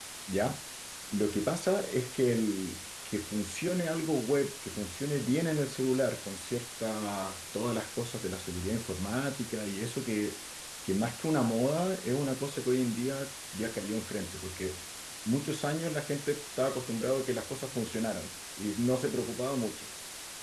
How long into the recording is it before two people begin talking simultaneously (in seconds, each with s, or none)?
none